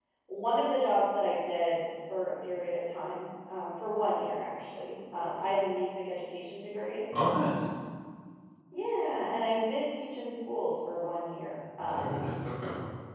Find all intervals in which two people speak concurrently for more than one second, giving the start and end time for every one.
none

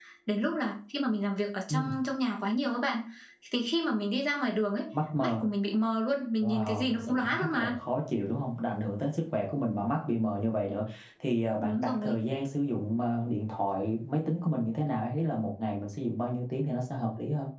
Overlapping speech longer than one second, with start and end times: 6.4-7.7

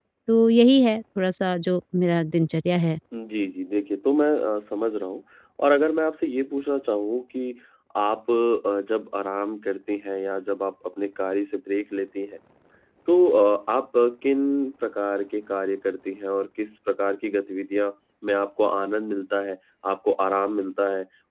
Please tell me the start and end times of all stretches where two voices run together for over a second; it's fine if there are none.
none

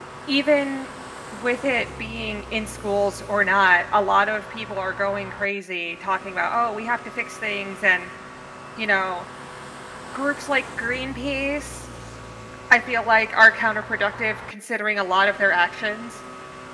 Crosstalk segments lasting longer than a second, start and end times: none

